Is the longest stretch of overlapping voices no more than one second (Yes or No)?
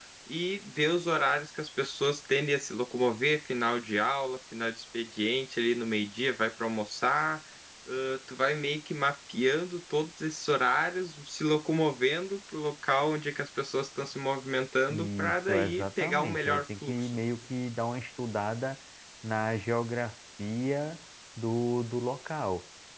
No